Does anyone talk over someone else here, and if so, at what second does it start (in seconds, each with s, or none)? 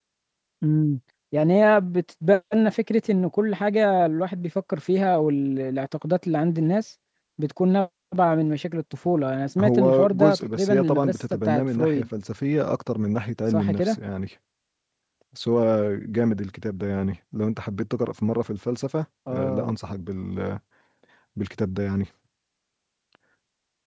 9.6 s